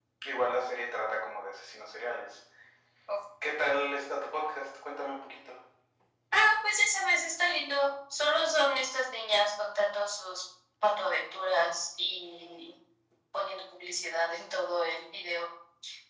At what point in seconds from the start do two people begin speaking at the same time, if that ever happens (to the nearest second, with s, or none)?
none